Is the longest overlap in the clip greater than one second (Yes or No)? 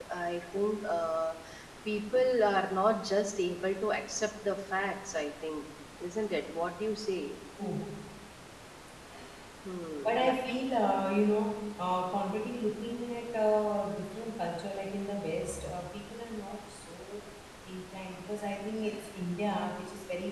No